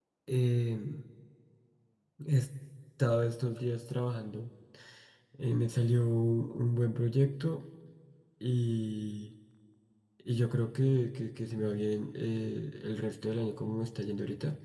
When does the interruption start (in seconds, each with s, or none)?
none